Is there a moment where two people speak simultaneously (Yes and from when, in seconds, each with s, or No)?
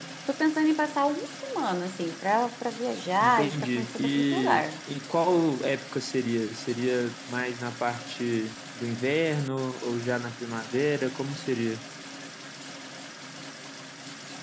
Yes, from 3.2 s